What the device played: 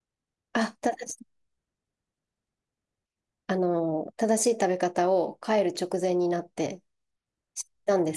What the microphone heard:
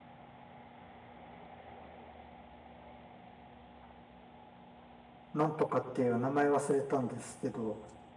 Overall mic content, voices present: user only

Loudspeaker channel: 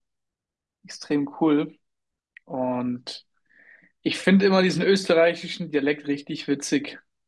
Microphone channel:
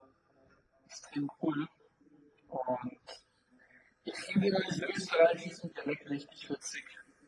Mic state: echo only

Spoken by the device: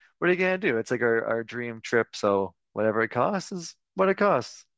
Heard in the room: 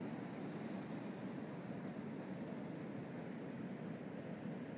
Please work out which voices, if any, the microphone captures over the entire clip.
neither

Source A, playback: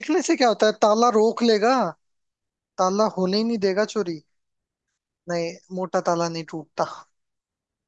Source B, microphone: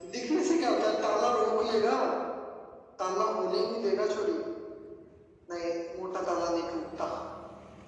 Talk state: echo only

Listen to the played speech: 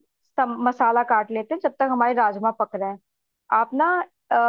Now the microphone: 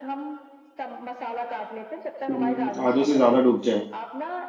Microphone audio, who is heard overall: both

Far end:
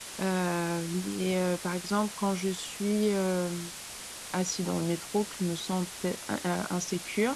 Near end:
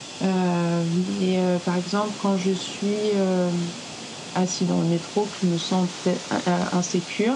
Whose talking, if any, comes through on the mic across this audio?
echo only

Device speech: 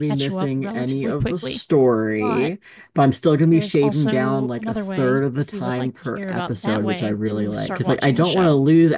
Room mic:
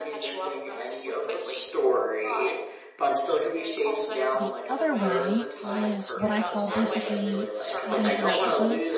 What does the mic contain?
both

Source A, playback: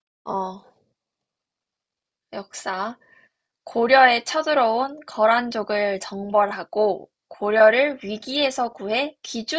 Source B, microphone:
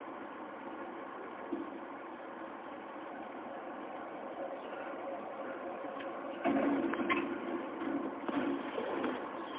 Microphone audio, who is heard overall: neither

